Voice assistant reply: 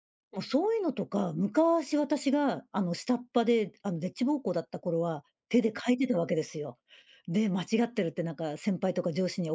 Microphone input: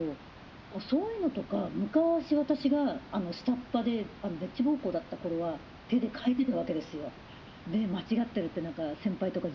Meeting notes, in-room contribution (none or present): none